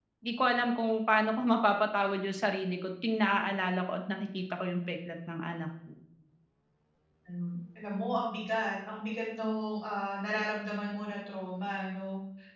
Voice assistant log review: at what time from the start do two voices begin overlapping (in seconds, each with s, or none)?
none